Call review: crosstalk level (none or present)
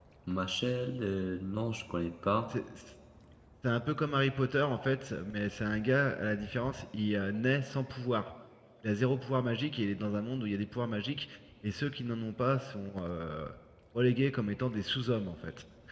none